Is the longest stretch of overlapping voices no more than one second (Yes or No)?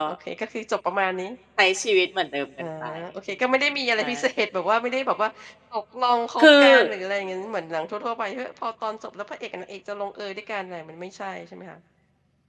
Yes